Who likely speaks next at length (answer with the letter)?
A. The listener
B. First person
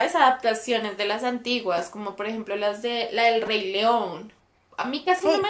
B